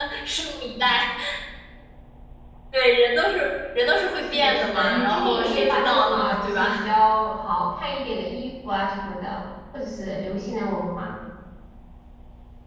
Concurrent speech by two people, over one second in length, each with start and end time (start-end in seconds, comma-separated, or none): 4.3-6.9